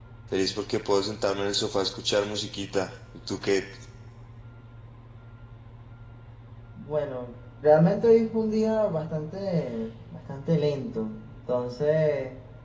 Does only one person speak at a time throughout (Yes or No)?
Yes